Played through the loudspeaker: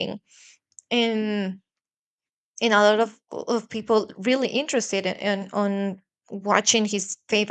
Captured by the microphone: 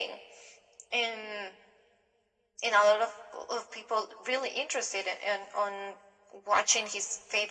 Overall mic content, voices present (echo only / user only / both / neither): echo only